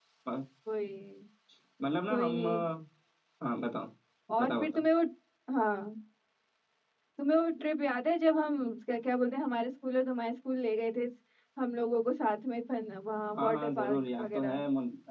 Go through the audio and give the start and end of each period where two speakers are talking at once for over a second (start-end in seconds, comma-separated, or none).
13.3-14.6